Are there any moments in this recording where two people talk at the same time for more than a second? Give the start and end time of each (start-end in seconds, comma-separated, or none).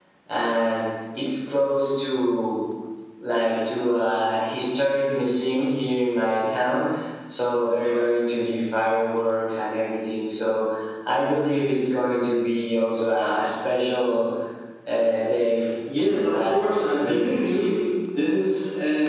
16.0-17.7